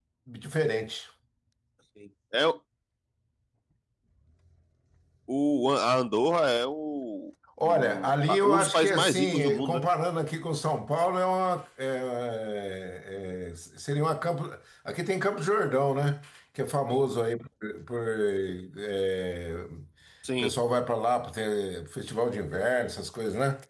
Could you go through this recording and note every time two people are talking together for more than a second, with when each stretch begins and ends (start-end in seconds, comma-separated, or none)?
7.6-9.9